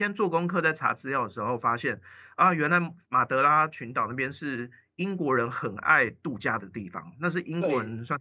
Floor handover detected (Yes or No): No